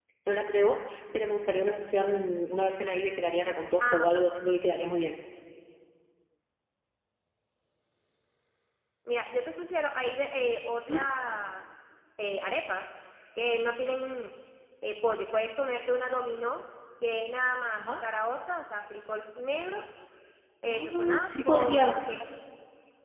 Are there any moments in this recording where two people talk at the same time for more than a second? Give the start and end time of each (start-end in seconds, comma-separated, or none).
20.7-21.9